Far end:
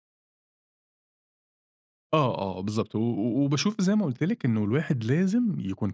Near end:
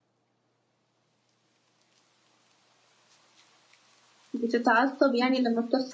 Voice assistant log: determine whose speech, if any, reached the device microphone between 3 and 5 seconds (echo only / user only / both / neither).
user only